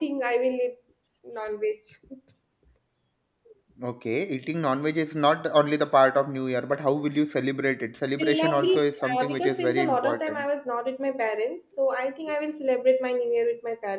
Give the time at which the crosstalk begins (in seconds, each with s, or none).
8.2 s